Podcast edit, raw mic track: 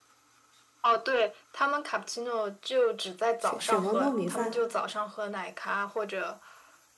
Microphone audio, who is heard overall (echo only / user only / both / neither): both